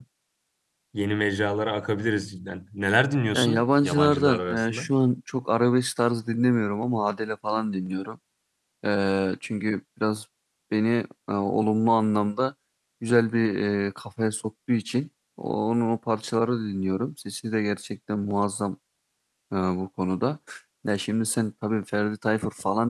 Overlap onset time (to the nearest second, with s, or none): 3 s